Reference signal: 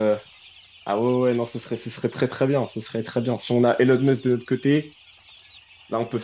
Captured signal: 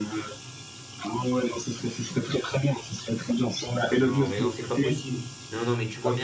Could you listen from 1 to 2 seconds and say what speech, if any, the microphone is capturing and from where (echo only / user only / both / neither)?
echo only